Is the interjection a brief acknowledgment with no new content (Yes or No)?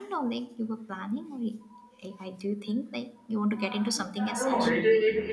No